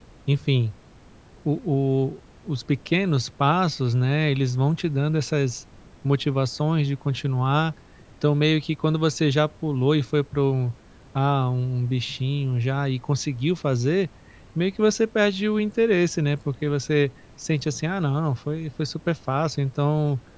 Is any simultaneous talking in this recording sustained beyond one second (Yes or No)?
No